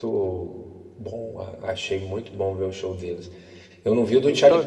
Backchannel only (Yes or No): Yes